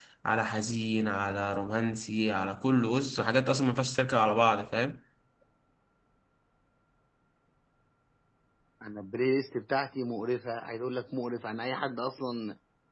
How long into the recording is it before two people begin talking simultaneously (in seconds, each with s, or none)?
none